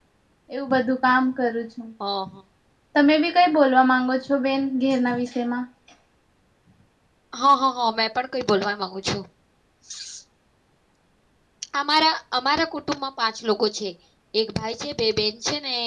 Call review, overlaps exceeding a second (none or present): none